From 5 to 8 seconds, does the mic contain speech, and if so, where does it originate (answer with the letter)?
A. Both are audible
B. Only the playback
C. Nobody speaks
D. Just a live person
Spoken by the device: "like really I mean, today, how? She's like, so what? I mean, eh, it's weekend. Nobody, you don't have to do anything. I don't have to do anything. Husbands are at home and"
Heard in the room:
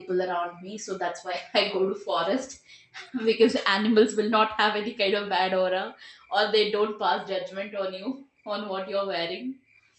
D